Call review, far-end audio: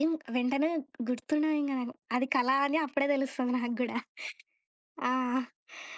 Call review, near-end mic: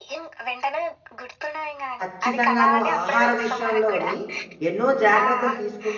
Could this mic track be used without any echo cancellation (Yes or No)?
No